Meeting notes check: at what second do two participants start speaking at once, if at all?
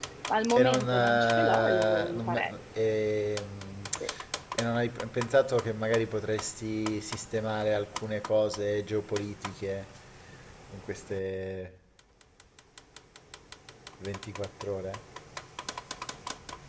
1 s

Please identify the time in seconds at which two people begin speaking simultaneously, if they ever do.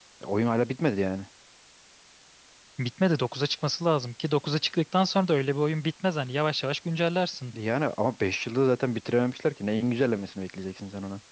none

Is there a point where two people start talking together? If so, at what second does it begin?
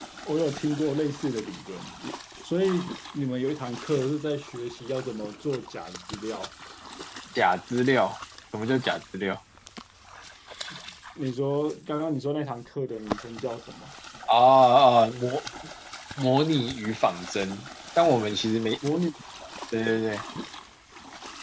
none

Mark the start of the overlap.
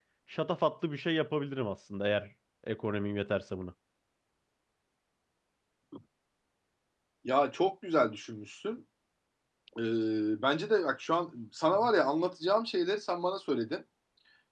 none

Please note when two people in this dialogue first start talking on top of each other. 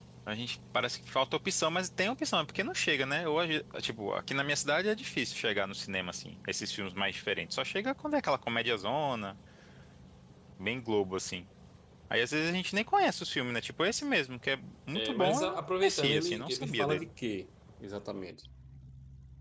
15 s

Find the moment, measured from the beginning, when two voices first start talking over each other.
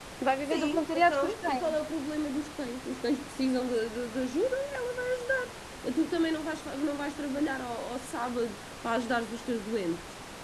1 s

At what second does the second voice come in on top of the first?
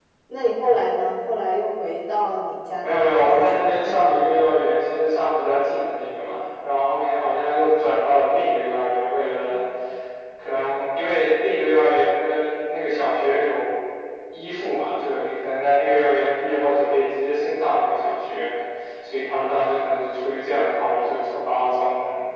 3 s

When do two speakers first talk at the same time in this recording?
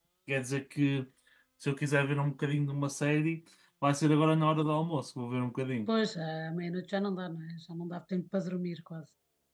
none

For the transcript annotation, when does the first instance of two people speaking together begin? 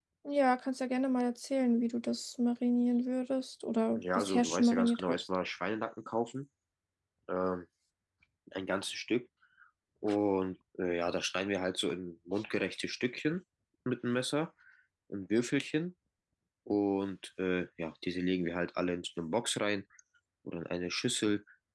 4 s

